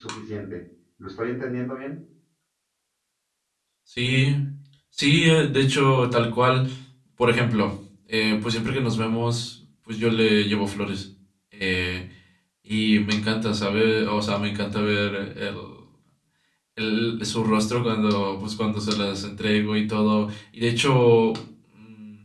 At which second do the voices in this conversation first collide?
none

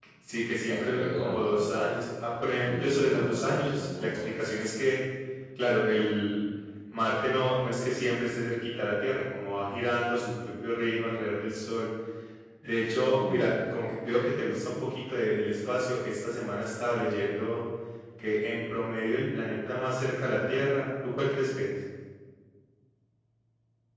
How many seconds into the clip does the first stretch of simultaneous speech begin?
0.7 s

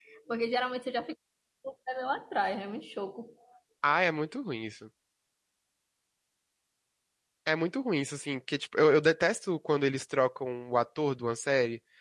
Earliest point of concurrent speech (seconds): none

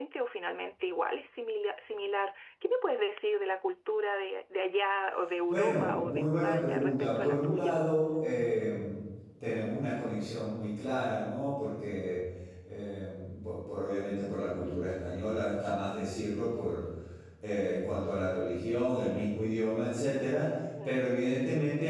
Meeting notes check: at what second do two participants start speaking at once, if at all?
5.5 s

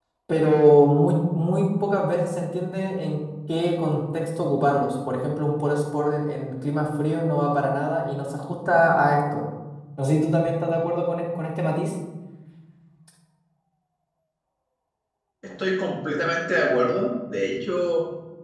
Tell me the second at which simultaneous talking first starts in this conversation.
none

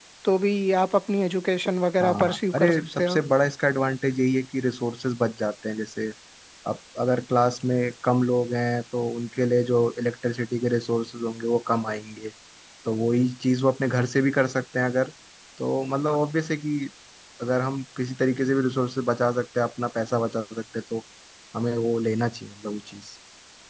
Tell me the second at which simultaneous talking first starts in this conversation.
2.0 s

